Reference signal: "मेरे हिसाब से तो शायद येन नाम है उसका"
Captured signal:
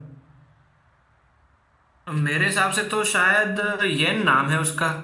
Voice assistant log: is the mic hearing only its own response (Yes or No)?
Yes